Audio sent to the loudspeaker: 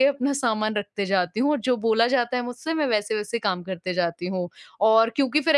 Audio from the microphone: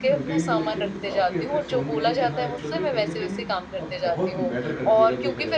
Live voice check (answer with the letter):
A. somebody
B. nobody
A